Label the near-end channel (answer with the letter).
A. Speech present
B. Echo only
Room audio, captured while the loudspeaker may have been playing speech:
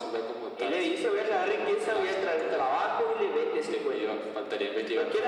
B